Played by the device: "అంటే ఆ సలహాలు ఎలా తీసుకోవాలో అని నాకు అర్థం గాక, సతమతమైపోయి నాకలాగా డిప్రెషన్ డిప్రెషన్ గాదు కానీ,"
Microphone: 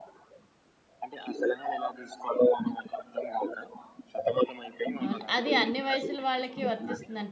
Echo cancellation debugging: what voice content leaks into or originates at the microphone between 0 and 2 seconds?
echo only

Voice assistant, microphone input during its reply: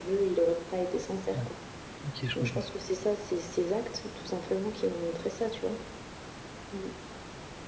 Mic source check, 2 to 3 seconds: both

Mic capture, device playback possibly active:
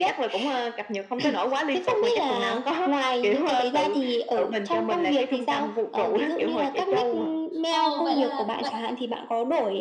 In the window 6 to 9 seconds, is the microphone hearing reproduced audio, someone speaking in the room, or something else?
both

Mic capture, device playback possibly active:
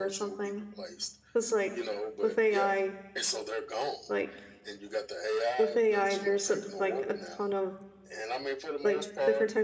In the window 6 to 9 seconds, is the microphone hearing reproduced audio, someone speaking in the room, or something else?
both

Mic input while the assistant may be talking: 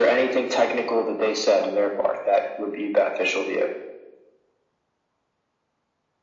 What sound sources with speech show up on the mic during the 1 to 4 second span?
echo only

